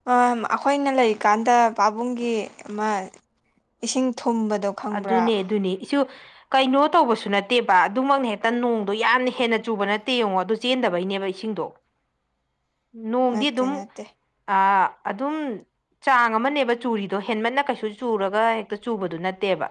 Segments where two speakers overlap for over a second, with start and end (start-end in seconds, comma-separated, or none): none